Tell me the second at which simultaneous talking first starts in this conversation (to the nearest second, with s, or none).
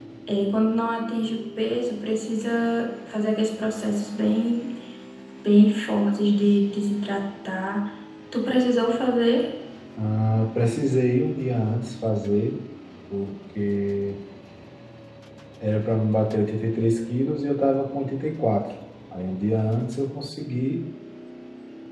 none